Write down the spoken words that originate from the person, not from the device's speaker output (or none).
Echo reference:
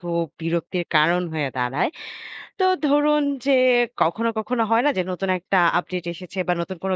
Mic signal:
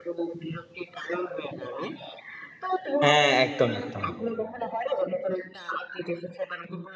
হ্যাঁ, একদম, একদম।